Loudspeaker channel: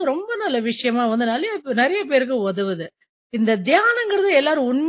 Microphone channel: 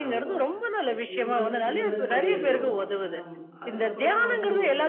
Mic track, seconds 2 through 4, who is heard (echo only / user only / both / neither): both